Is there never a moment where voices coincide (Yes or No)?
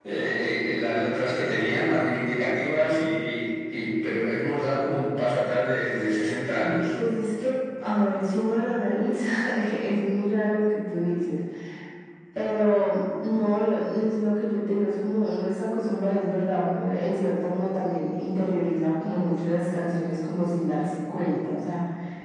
Yes